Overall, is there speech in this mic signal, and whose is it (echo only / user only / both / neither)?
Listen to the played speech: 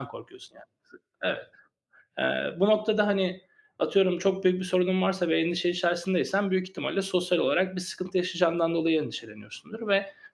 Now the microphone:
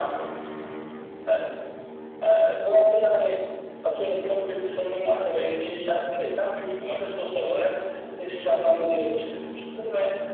echo only